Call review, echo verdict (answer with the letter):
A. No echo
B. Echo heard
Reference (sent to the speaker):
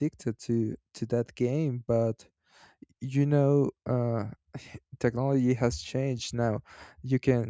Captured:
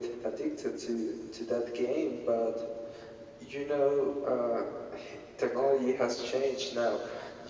B